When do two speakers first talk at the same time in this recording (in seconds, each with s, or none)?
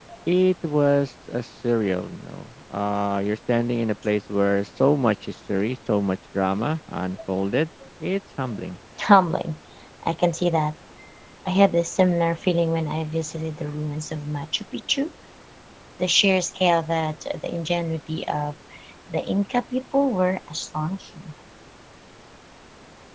none